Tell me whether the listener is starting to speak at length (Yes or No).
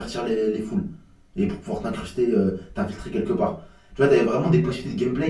No